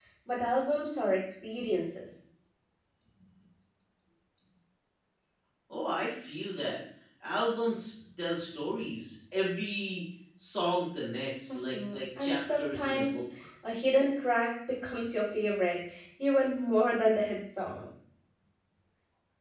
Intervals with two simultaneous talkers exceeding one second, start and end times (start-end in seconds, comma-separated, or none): 11.7-13.2